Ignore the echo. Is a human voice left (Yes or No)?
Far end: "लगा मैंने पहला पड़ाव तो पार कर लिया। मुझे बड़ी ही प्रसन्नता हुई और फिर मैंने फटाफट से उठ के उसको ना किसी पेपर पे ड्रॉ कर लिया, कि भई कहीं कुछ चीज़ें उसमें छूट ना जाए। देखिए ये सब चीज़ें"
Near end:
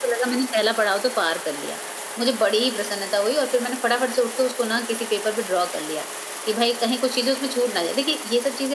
No